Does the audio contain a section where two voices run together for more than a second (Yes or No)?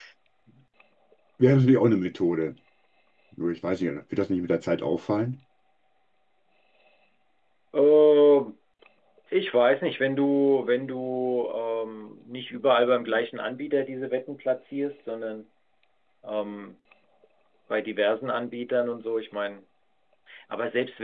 No